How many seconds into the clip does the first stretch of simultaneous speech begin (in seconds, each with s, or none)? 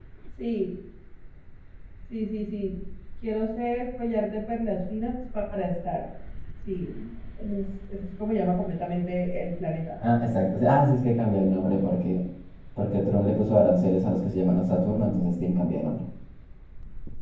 none